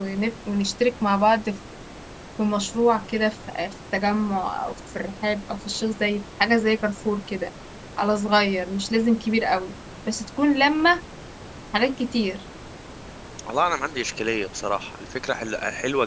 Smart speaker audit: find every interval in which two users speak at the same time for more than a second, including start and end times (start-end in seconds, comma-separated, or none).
none